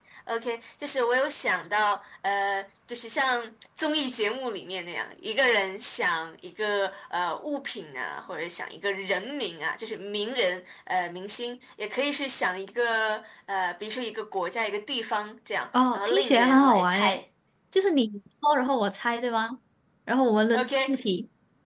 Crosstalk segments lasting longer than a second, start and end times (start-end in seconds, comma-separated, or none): 15.9-17.2